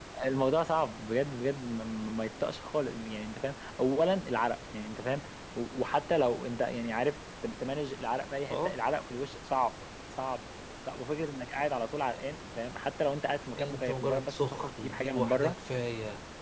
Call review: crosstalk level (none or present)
present